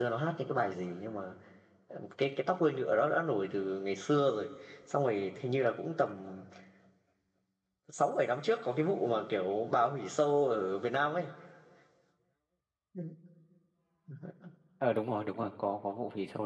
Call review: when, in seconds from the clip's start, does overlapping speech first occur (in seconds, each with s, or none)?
none